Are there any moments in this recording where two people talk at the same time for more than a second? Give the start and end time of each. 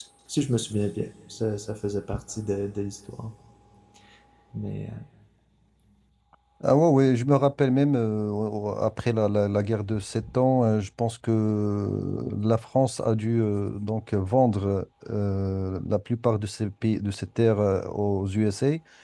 none

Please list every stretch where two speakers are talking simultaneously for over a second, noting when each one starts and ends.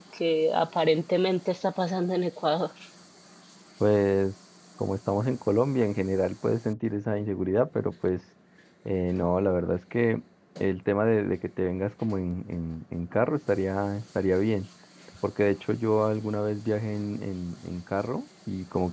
none

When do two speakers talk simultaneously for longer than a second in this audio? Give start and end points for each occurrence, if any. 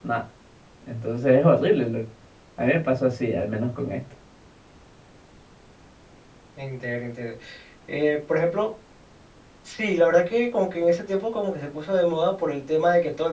none

